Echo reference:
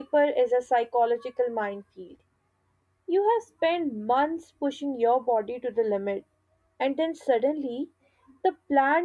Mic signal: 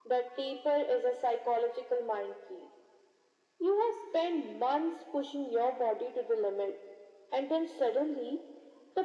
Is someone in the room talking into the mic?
No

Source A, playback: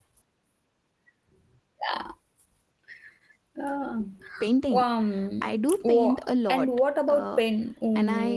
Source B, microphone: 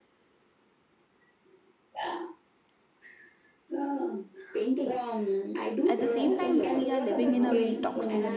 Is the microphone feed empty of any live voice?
No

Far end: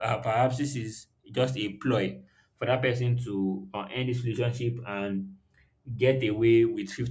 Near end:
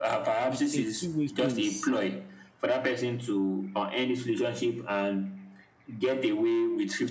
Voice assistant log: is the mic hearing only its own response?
No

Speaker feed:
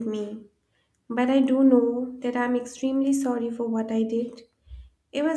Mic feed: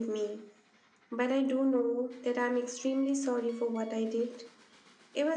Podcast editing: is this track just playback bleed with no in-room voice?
Yes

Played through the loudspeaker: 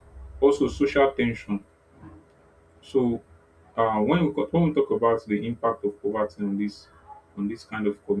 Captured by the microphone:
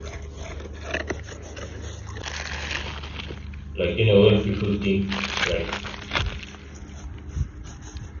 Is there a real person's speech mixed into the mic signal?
Yes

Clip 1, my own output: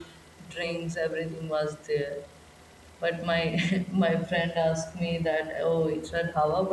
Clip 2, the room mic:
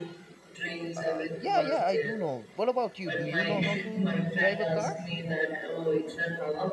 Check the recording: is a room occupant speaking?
Yes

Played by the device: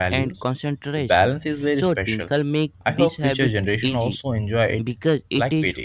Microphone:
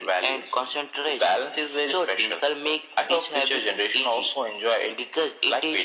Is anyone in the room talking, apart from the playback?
No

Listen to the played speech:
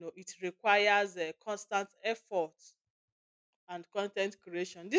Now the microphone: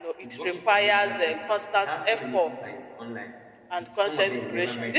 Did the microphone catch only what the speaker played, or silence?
No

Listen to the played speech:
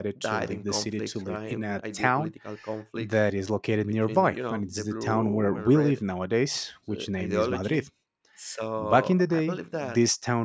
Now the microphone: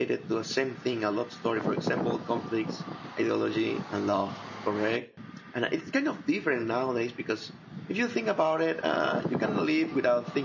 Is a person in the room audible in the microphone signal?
Yes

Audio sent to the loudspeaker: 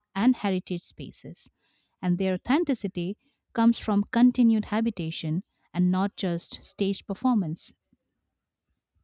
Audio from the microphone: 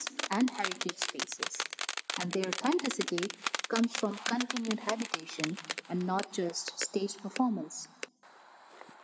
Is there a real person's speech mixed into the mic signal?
No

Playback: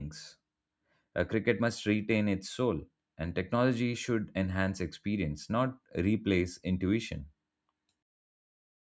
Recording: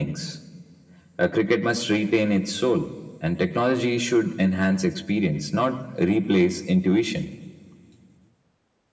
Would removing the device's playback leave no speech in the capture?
Yes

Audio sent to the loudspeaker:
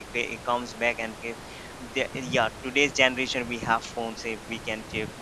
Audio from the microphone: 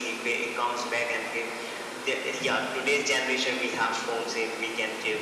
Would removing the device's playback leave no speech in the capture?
Yes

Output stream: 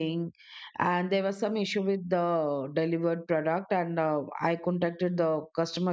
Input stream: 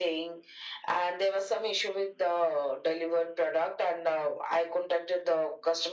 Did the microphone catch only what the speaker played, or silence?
Yes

